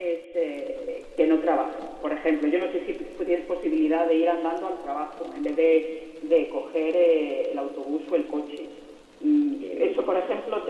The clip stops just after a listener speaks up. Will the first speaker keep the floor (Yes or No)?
Yes